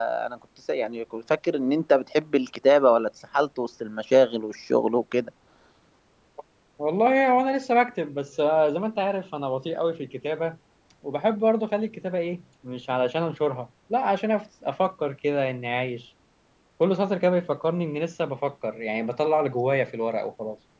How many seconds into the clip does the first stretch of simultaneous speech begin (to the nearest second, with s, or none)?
none